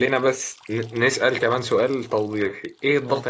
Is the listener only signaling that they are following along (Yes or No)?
Yes